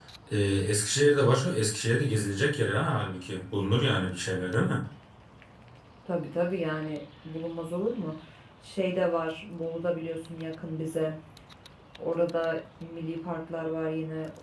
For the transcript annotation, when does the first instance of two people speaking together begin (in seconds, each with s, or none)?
none